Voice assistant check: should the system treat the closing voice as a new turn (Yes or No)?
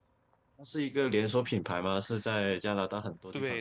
Yes